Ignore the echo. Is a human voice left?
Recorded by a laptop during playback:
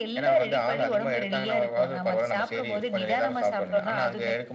No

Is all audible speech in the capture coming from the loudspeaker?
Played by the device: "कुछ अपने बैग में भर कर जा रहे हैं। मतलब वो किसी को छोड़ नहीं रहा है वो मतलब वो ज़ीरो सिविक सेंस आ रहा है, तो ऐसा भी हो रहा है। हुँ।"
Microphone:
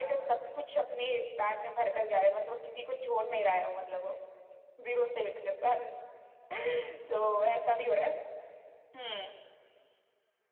Yes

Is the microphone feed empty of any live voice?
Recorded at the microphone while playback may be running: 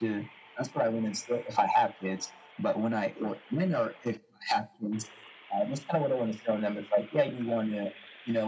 Yes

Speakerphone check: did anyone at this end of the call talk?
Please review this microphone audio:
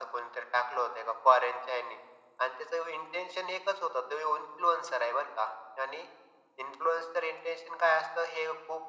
No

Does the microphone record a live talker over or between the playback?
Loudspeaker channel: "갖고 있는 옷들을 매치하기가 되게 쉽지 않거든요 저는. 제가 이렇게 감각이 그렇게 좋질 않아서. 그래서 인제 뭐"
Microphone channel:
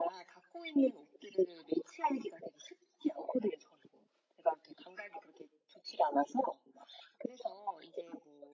No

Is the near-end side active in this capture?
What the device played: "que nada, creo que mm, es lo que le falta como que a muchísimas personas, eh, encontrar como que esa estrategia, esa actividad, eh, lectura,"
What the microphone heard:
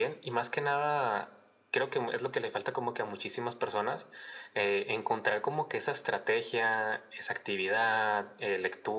No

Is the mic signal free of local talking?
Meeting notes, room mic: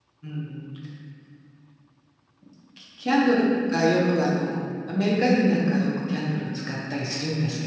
No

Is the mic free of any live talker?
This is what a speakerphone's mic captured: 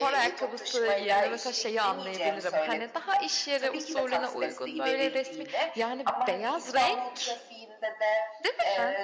No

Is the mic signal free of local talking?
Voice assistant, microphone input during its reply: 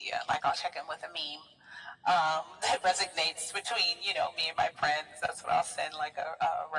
Yes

